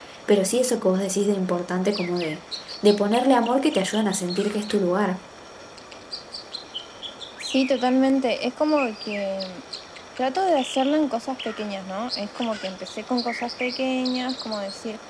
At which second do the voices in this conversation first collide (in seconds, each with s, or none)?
none